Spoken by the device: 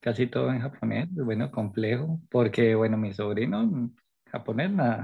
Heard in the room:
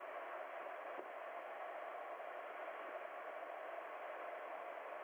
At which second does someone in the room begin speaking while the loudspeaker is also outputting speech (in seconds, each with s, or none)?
none